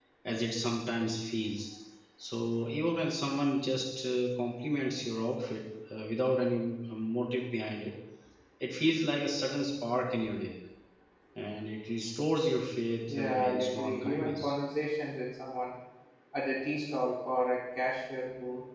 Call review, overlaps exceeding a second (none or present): present